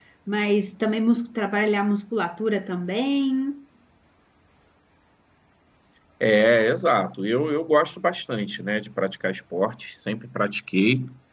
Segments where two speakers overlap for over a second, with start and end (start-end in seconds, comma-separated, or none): none